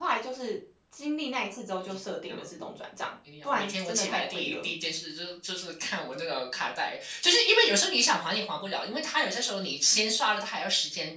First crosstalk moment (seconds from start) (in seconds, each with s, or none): 3.3 s